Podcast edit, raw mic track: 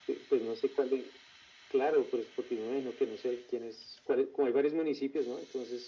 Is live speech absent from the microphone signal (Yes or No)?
Yes